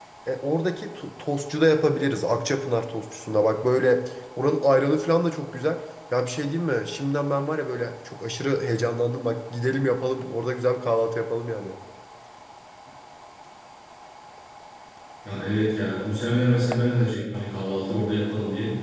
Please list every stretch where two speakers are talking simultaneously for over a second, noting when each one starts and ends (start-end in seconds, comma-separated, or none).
none